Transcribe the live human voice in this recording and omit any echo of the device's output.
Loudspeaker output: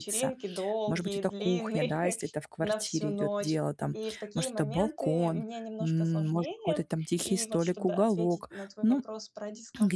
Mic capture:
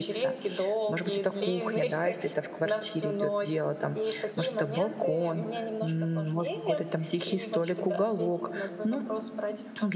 none

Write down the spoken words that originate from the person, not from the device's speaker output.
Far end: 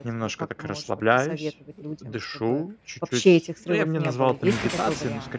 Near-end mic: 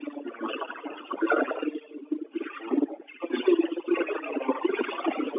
none

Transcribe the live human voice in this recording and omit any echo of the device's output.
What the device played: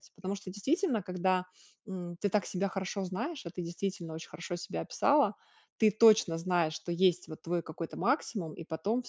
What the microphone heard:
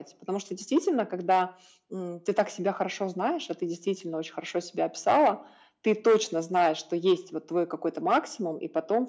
none

